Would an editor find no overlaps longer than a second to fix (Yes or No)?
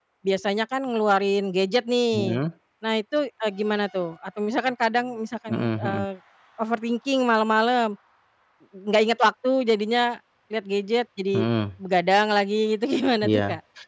Yes